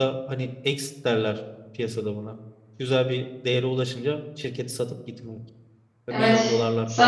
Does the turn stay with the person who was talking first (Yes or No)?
No